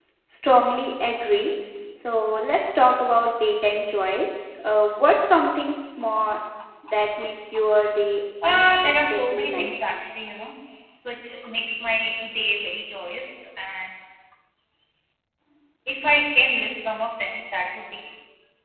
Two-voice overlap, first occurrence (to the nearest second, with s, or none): 8 s